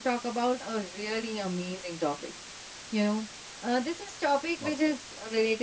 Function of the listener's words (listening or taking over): listening